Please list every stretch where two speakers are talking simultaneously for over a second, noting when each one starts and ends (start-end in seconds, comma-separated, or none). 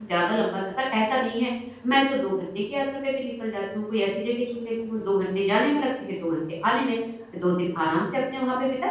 none